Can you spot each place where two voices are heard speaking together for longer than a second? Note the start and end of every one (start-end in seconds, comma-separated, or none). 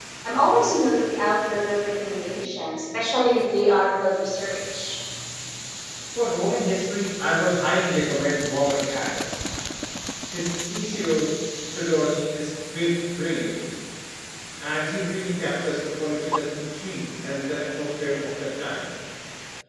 none